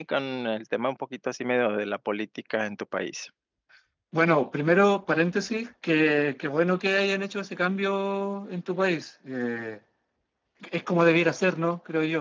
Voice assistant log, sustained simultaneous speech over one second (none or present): none